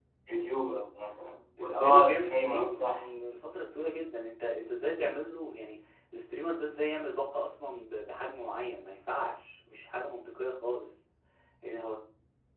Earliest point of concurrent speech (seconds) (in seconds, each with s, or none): 1.6 s